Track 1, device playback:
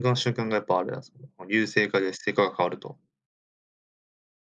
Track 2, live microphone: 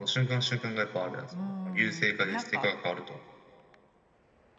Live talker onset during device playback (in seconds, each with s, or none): 1.3 s